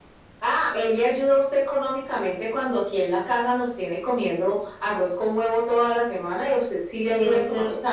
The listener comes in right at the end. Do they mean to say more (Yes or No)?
Yes